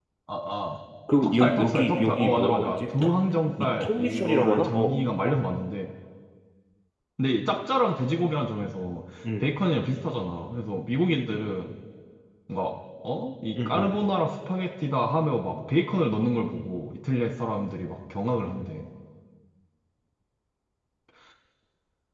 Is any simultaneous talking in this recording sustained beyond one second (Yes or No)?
Yes